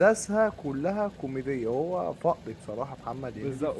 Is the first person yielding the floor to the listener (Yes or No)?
Yes